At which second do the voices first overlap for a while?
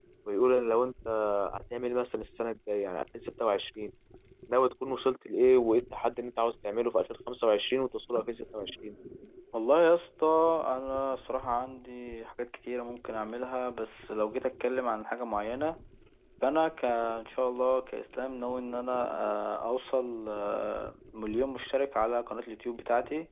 none

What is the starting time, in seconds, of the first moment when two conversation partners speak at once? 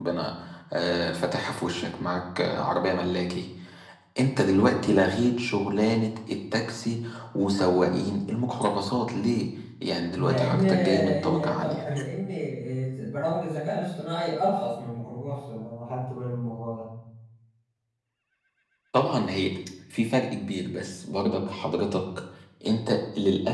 10.2 s

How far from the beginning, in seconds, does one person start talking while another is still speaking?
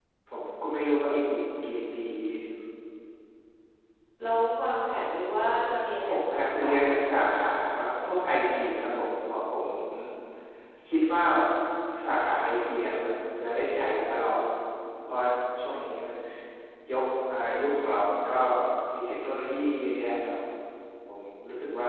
6.0 s

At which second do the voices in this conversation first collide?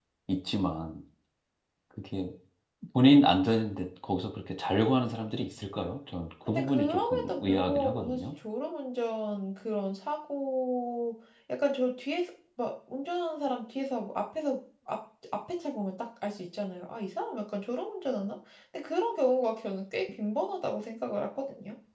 6.5 s

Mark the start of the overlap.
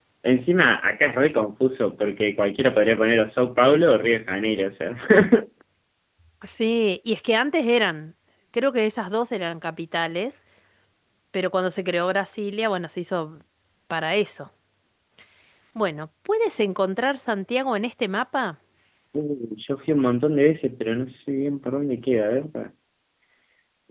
none

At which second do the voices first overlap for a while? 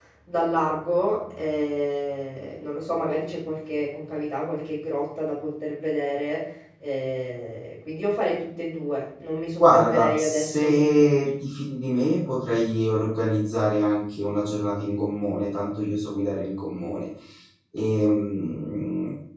9.6 s

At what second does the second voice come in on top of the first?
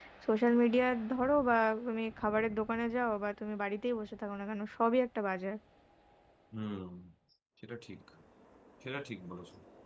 none

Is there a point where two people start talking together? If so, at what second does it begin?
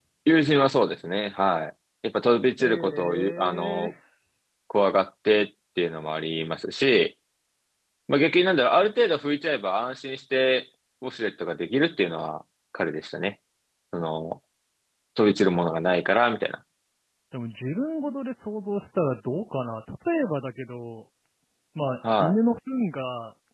2.6 s

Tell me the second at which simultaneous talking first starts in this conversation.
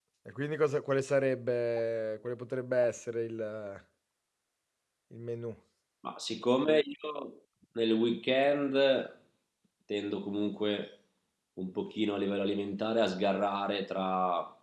none

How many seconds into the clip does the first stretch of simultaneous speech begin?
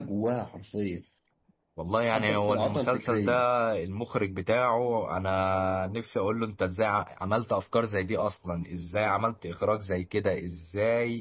2.0 s

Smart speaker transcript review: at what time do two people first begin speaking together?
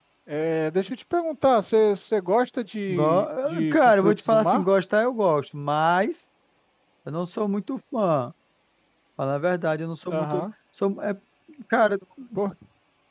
2.9 s

